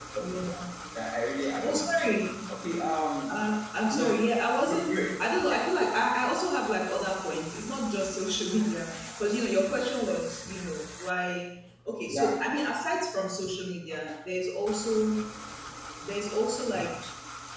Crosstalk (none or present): present